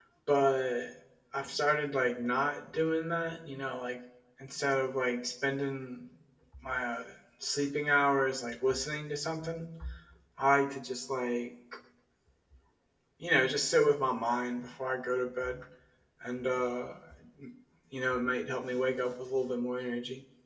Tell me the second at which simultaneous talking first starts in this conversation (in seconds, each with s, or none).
none